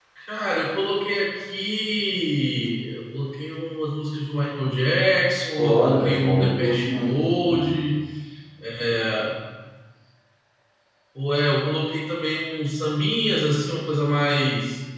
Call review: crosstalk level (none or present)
present